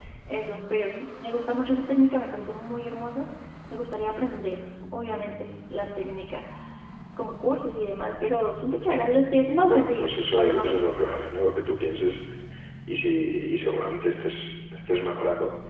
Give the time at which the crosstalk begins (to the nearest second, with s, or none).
10 s